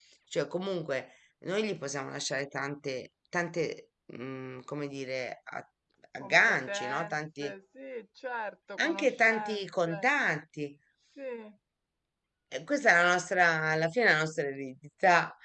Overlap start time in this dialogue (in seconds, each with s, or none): 6.2 s